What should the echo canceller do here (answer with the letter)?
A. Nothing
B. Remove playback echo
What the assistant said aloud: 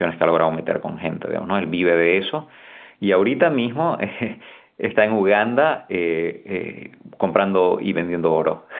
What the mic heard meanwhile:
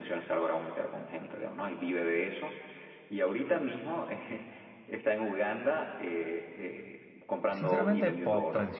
B